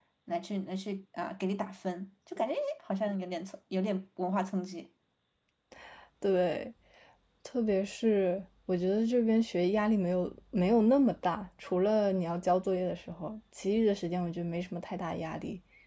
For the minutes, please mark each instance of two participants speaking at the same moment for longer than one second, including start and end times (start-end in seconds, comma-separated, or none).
none